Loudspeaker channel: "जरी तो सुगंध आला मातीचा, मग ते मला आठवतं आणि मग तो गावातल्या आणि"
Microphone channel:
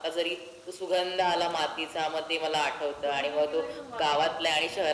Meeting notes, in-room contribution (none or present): present